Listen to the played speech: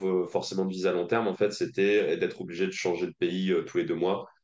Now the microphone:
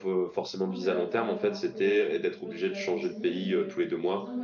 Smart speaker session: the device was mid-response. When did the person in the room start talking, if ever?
0.6 s

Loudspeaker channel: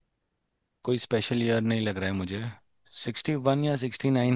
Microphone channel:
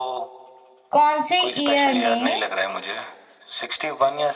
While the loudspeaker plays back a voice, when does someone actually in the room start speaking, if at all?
0.9 s

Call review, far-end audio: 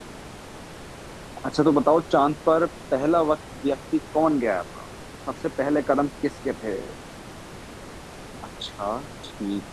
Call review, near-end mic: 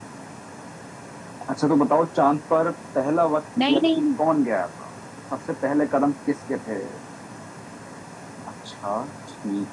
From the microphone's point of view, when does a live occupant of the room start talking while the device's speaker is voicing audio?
3.6 s

